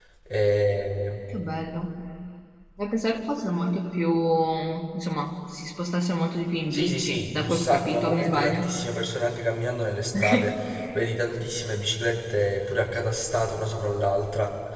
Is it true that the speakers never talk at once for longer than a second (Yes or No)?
No